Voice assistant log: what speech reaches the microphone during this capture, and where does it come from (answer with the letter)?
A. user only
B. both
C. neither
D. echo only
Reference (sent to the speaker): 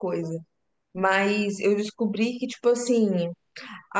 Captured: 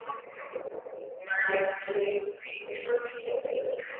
D